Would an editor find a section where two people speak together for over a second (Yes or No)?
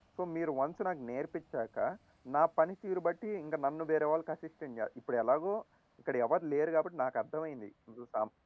No